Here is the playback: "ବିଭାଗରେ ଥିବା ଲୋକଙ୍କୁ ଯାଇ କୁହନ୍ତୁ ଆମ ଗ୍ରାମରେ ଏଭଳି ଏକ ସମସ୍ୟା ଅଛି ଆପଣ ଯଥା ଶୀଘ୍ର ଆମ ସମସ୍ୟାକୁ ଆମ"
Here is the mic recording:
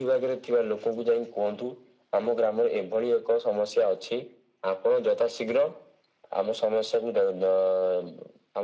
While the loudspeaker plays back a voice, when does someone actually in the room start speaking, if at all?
none

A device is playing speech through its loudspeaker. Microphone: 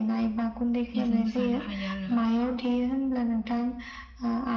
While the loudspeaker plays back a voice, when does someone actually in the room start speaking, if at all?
0.9 s

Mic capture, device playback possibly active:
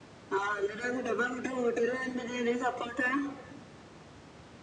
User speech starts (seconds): none

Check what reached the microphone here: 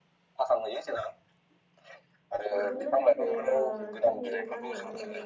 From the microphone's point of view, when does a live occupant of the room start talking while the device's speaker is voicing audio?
2.5 s

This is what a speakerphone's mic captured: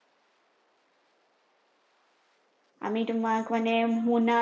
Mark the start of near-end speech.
2.9 s

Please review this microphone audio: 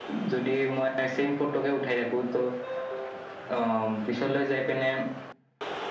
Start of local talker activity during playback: none

